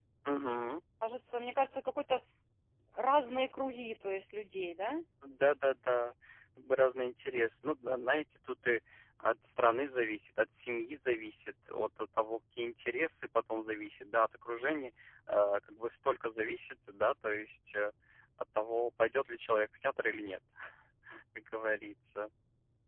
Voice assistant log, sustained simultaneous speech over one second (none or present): none